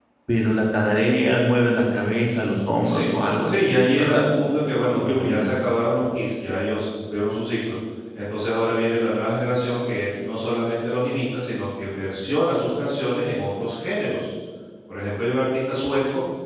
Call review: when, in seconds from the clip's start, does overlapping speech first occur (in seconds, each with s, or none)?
2.8 s